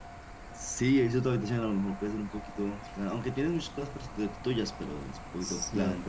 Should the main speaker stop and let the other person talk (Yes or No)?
Yes